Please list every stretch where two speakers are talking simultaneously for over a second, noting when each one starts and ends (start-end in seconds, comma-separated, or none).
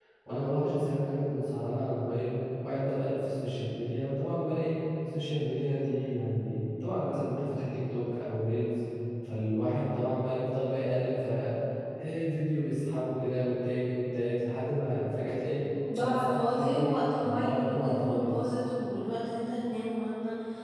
16.0-18.3